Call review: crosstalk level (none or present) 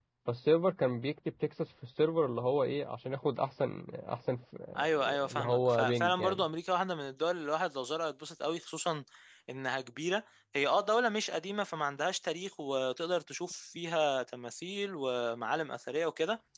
present